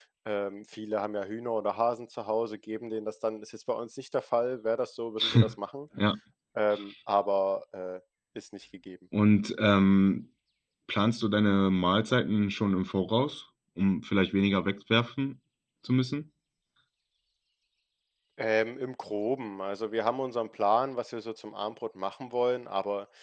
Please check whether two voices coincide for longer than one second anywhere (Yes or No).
No